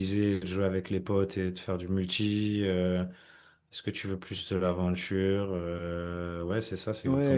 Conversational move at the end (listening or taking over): taking over